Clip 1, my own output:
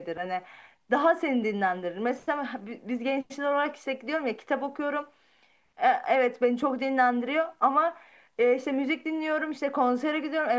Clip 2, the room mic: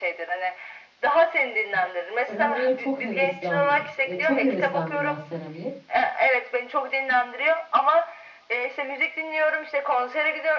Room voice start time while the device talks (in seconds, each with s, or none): 2.3 s